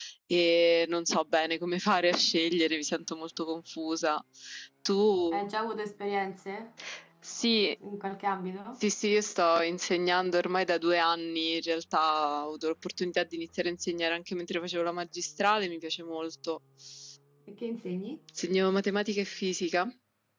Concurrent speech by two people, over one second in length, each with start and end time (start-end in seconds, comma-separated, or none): none